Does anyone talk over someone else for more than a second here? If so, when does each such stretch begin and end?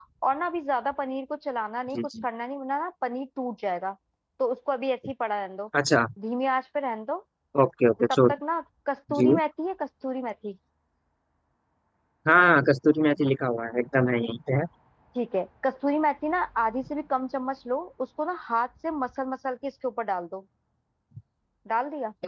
none

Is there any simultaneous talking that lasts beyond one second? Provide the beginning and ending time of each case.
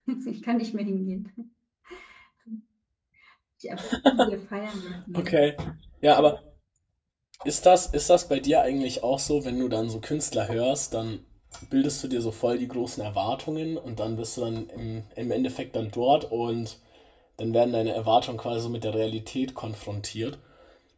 none

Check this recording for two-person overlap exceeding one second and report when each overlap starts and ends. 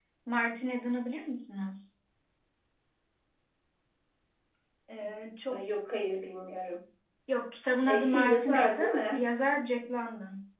7.8-9.2

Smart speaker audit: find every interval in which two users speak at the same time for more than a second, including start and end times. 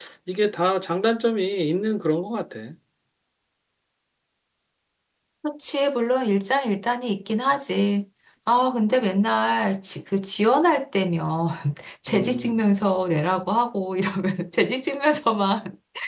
none

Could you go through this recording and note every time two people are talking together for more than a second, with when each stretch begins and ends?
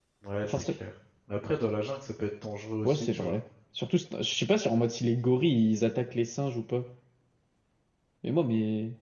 none

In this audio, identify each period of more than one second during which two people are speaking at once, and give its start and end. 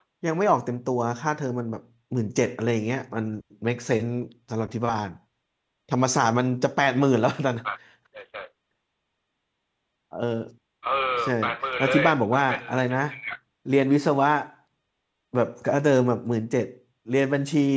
11.8-13.0

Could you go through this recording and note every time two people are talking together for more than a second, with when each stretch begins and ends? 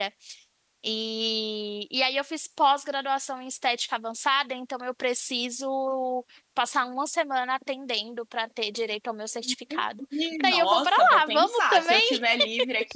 10.4-12.2

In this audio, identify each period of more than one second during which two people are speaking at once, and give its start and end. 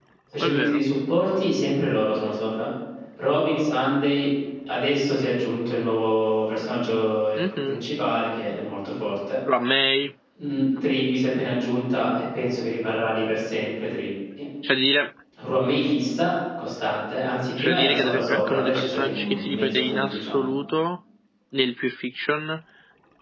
17.6-20.4

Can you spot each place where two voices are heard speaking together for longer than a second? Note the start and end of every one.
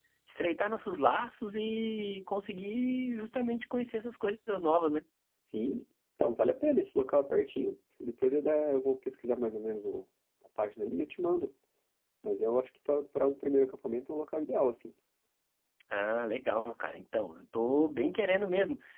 none

